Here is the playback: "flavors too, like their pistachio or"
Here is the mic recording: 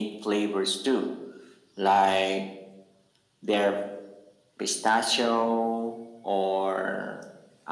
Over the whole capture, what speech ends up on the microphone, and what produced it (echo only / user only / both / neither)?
echo only